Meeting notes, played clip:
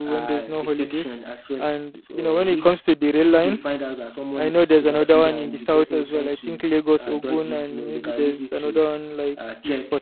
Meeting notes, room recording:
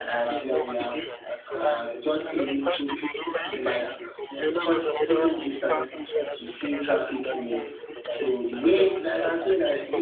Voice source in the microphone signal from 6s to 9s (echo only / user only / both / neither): both